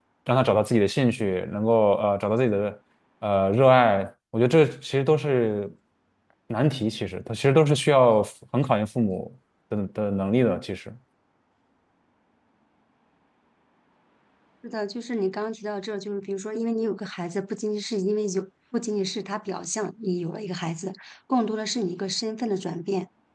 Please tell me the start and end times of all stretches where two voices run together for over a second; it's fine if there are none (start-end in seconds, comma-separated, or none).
none